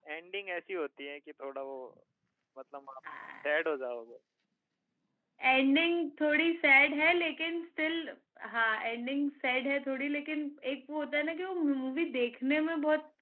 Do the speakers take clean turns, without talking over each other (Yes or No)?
Yes